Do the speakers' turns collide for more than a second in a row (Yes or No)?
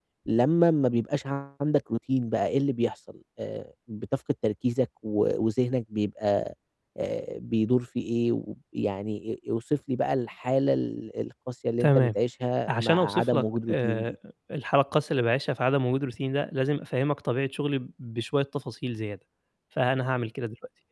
Yes